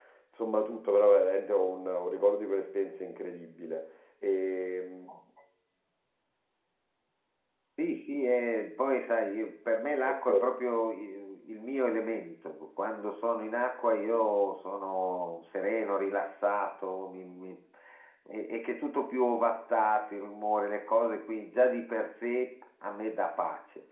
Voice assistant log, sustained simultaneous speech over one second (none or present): none